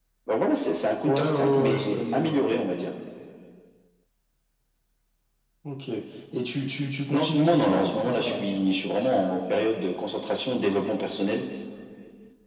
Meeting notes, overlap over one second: present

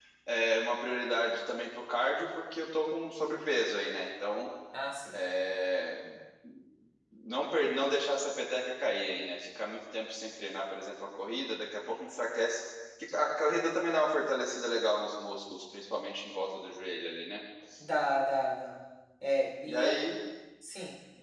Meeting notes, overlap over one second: none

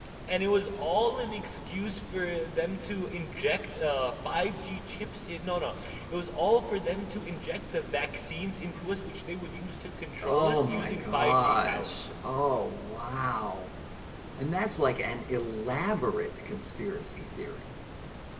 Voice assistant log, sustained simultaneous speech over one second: present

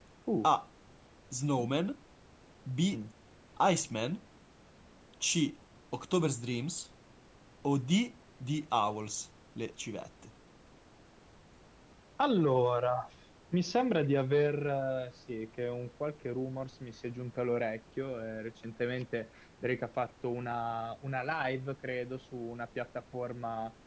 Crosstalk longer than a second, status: none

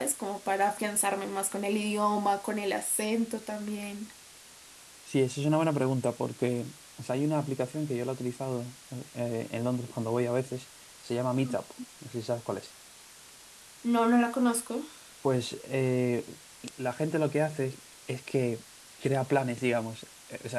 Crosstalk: none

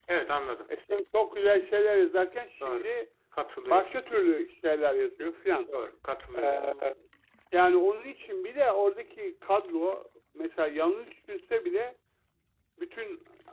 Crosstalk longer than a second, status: none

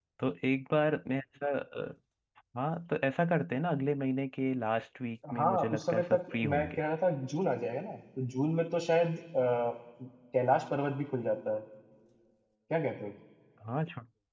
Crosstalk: present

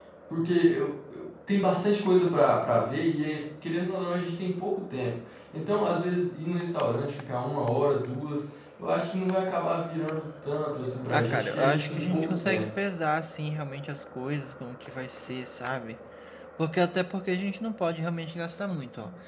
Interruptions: present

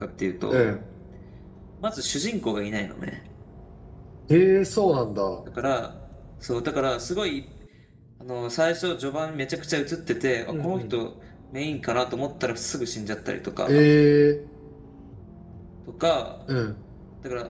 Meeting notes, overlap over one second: none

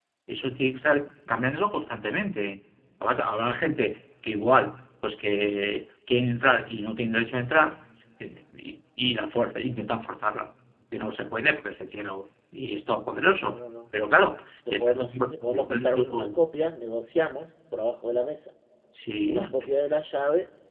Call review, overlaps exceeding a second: present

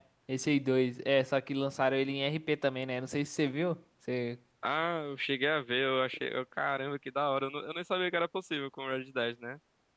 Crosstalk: none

